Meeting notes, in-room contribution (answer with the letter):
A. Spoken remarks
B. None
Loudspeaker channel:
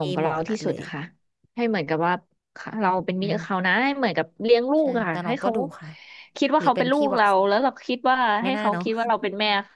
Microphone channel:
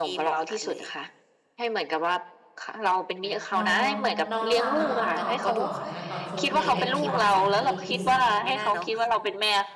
A